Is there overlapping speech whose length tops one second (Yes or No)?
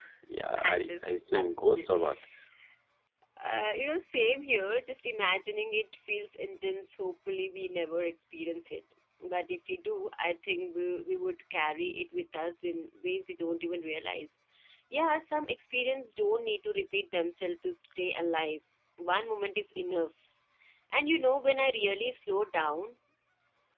Yes